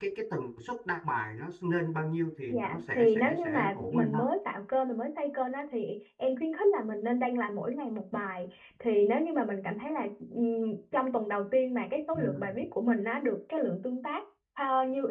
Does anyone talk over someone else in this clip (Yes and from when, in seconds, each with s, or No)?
Yes, from 2.5 s